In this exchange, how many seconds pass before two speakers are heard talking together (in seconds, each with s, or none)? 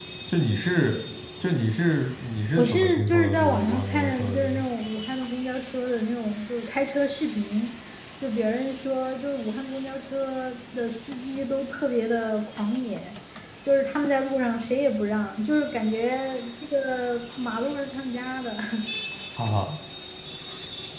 2.5 s